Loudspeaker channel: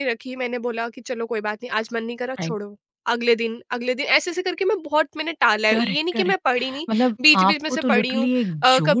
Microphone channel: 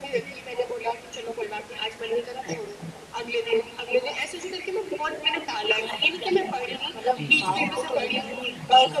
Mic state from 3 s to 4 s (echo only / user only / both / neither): echo only